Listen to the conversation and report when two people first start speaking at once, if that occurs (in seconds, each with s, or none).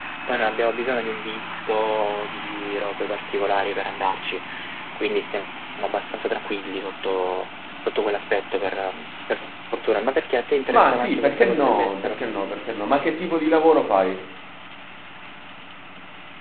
10.7 s